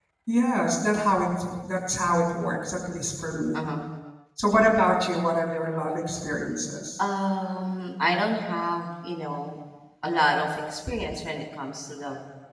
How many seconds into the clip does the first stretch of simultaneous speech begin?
none

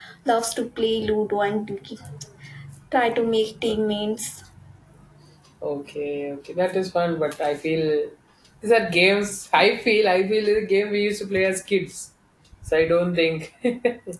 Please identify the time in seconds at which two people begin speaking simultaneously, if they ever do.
none

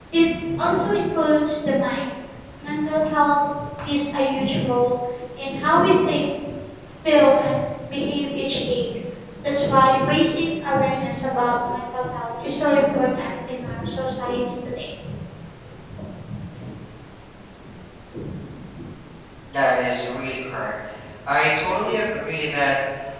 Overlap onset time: none

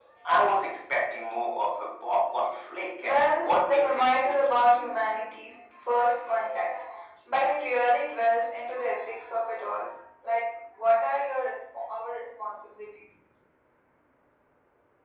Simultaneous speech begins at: 3 s

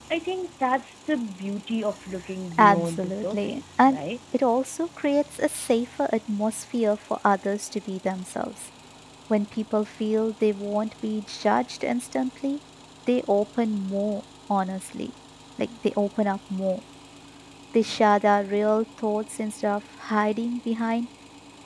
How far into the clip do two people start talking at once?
3 s

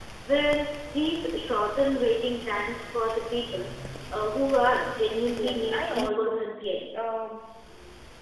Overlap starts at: 5 s

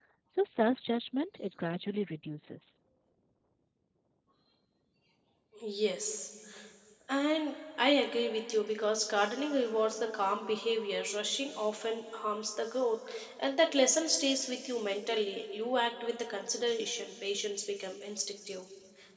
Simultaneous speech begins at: none

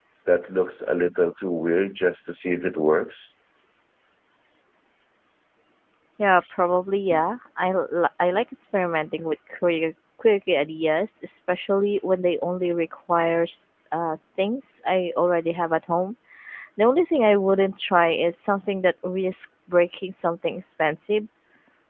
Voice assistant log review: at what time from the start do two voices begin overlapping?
none

